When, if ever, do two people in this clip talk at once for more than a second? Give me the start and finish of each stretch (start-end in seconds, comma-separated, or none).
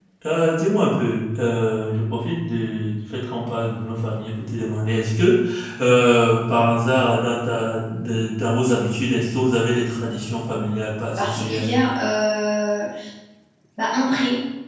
none